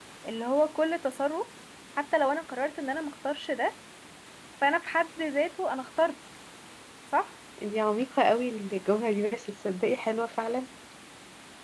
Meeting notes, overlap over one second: none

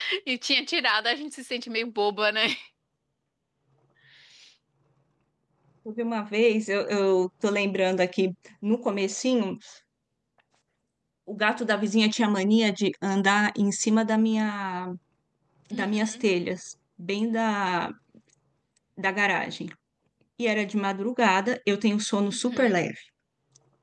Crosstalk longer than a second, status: none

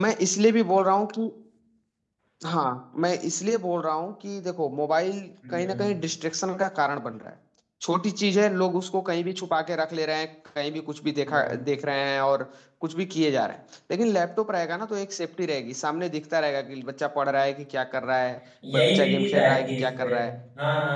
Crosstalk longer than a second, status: present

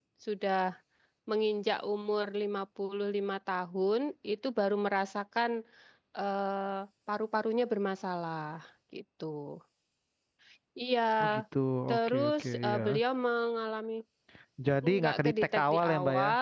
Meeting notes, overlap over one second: present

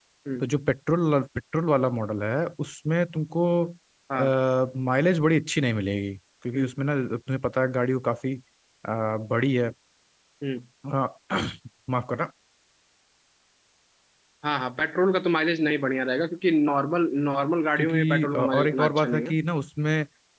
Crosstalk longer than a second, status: present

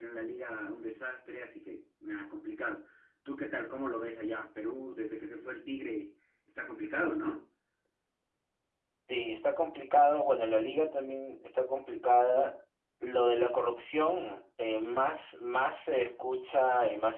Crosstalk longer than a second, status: none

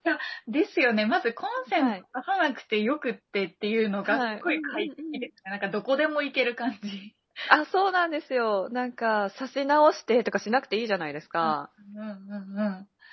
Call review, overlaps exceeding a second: present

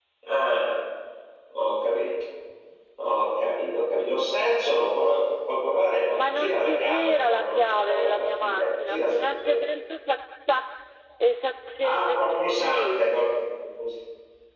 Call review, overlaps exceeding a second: present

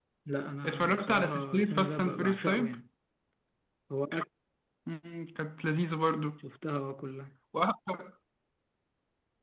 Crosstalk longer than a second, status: present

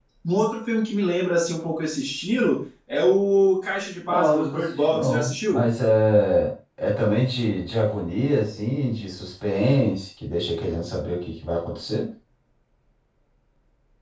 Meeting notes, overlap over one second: present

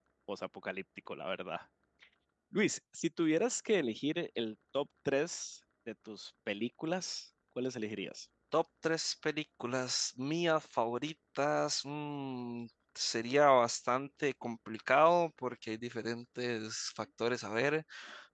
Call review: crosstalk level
none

